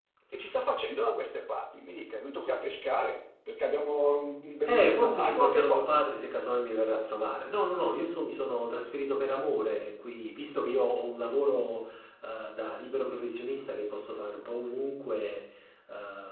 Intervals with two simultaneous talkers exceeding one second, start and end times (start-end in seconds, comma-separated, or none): 4.7-6.0